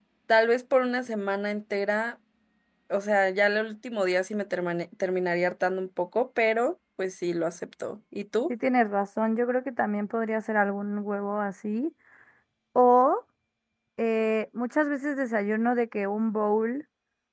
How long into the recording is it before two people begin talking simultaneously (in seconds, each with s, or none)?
none